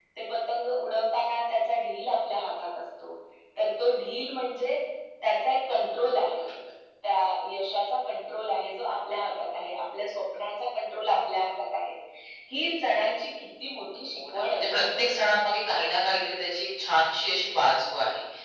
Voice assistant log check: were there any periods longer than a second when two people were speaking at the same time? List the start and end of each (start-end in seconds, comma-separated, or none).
none